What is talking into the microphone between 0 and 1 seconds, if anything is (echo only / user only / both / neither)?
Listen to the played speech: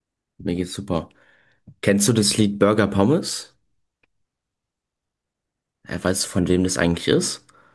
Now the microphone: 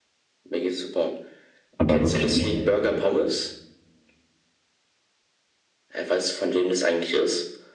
echo only